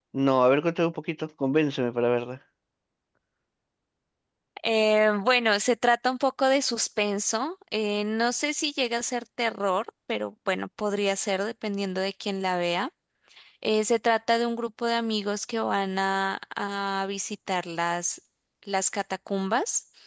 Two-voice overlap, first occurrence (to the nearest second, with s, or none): none